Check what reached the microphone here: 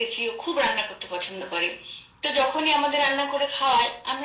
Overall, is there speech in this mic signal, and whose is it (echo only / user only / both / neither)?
echo only